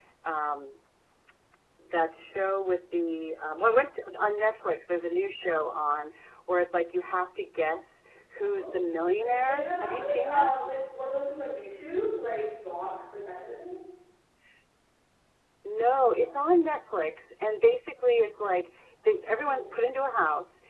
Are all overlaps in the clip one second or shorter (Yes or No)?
No